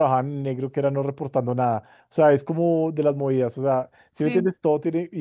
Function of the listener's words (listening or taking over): listening